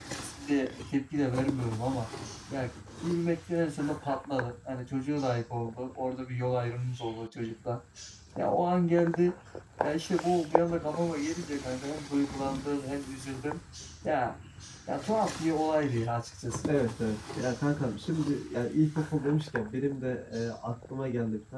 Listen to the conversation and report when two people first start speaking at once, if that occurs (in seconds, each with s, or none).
none